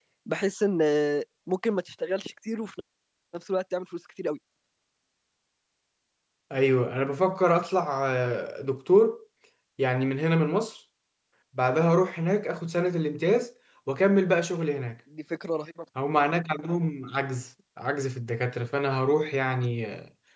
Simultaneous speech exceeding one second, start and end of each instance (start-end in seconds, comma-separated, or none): none